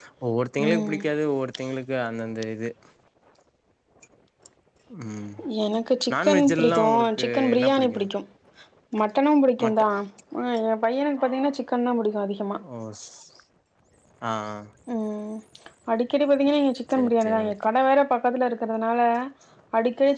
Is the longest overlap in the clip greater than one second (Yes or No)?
Yes